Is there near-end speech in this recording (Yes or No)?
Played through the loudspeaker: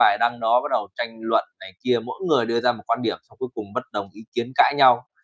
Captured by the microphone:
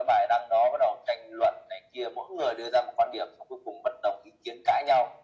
No